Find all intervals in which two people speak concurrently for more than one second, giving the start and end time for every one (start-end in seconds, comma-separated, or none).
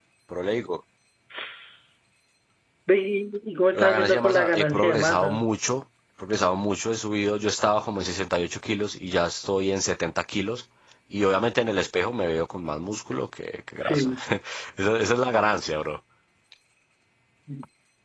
3.7-5.5